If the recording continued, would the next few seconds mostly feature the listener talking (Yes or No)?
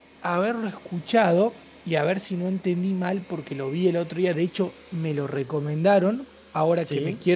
No